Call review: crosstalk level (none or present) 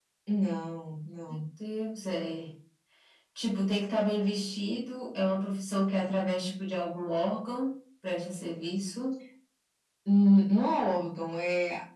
none